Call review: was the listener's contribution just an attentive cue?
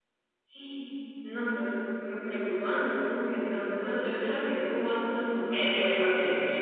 No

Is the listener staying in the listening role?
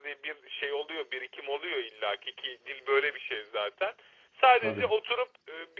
Yes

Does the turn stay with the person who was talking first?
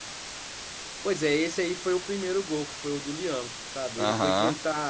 Yes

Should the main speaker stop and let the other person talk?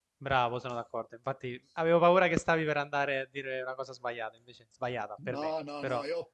Yes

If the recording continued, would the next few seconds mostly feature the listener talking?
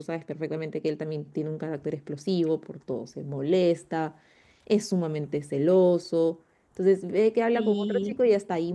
No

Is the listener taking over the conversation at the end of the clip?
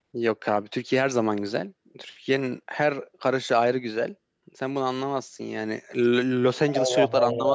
Yes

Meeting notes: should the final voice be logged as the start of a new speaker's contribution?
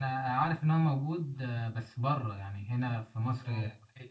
Yes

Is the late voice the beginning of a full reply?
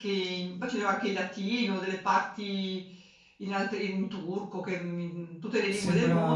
Yes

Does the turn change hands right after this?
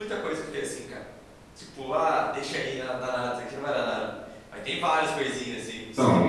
Yes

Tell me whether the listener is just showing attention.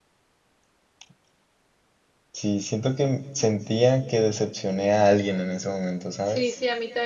No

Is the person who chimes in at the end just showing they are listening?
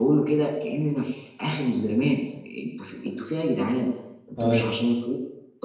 Yes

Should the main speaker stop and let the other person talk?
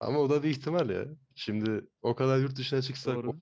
No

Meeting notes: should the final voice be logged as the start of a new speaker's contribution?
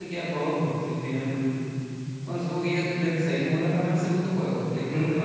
Yes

